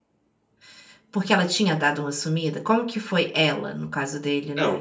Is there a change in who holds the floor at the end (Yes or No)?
Yes